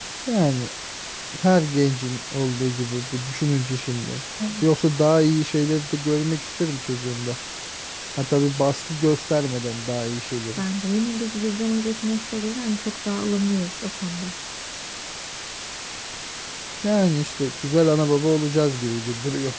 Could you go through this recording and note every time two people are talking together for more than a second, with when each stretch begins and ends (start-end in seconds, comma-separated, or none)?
none